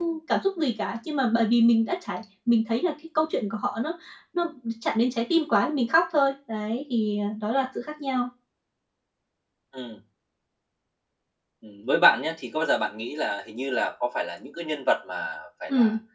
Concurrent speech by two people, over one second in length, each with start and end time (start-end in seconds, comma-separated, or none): none